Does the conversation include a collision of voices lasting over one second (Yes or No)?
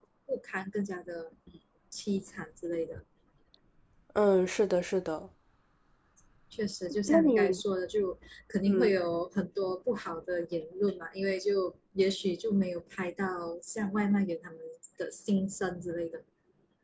No